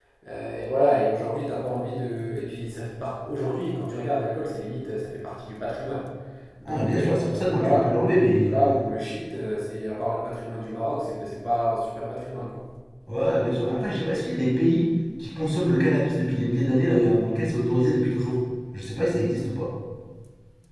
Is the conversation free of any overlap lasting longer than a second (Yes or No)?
No